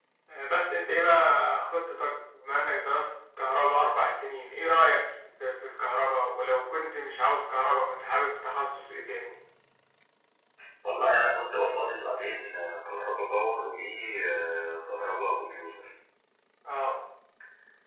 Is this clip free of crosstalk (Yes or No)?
Yes